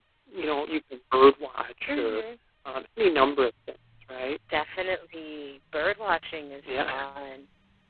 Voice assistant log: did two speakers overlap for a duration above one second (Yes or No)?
No